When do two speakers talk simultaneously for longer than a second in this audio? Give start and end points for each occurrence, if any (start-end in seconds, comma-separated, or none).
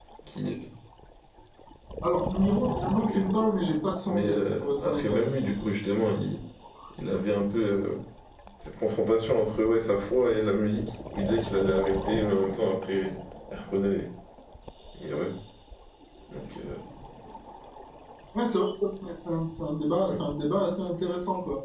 4.0-5.3